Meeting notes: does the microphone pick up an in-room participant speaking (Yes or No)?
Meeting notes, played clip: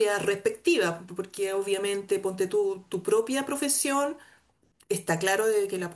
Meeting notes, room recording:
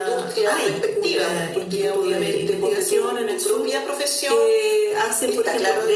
Yes